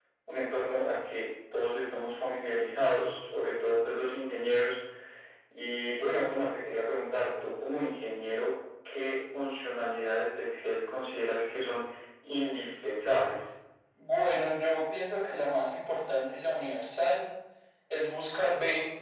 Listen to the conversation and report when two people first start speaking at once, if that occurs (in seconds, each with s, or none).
none